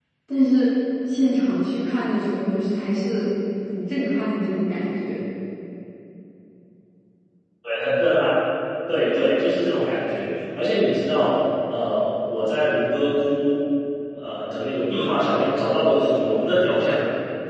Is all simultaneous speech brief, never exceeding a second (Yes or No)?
Yes